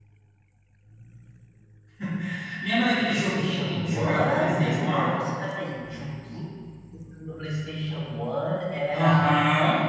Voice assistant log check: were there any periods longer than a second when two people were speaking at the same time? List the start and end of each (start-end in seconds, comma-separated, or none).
3.0-5.2